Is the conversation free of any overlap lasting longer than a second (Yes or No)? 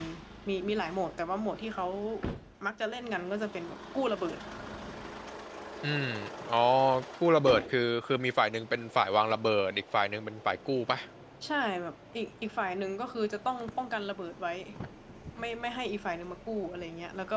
Yes